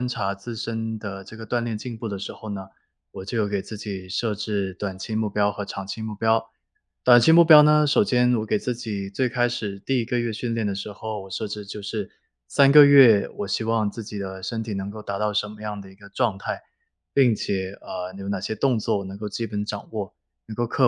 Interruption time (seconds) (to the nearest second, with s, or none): none